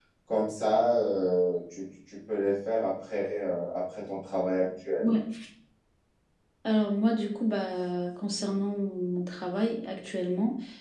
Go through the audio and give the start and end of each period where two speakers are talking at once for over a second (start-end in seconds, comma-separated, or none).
none